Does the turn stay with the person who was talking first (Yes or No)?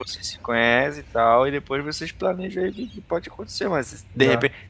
Yes